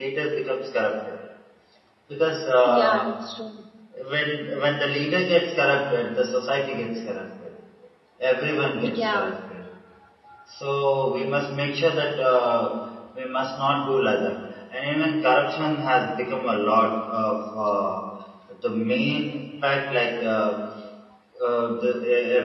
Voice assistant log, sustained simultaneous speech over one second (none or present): none